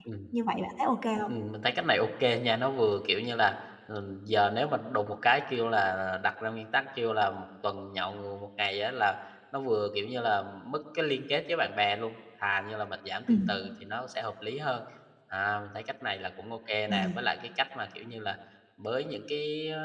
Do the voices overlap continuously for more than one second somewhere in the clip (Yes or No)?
No